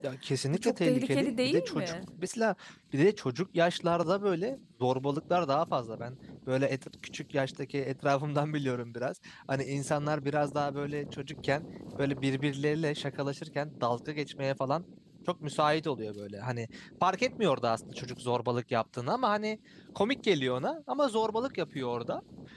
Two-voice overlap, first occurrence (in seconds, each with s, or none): 0.5 s